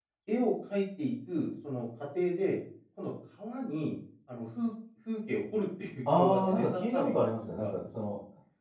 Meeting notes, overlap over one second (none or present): present